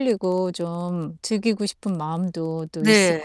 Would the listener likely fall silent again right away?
No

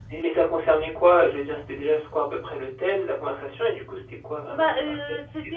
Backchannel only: No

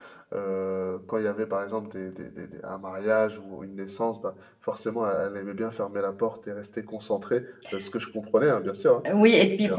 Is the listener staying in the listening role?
No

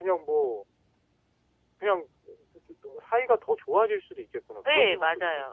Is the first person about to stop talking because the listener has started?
Yes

